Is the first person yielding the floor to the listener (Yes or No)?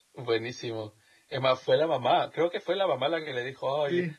No